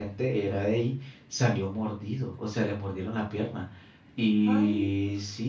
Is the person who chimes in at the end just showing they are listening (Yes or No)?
Yes